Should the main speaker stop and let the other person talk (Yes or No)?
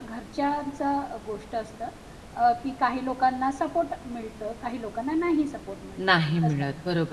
Yes